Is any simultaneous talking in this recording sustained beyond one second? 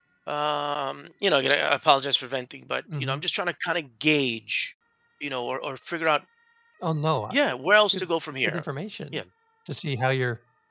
No

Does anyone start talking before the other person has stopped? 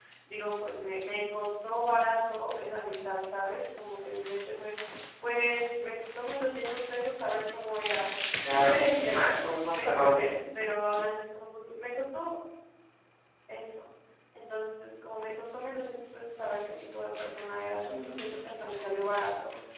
Yes, from 8.4 s

